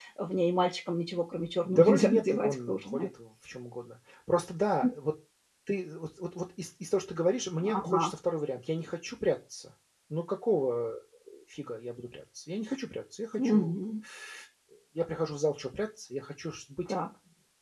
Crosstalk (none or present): present